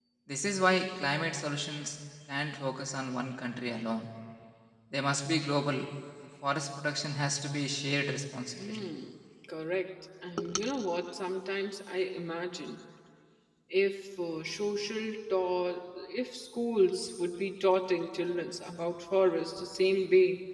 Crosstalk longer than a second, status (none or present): none